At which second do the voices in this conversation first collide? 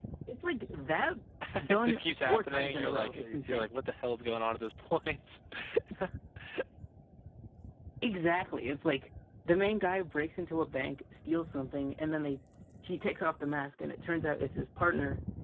2 s

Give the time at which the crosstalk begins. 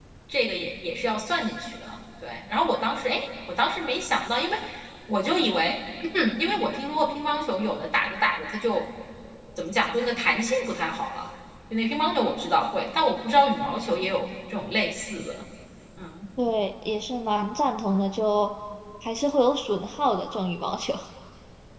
none

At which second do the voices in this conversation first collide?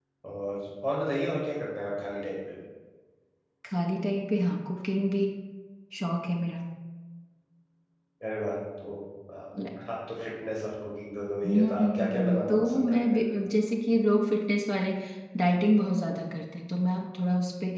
11 s

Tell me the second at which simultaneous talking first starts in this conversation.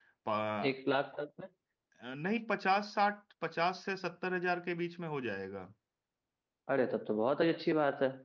none

